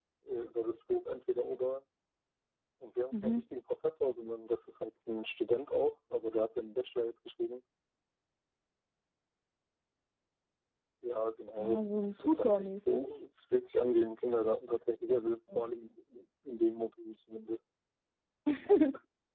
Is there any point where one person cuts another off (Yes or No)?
Yes